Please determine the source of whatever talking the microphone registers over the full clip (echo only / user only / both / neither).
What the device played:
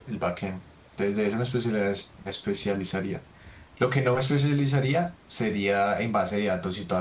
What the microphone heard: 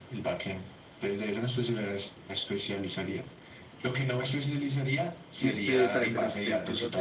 both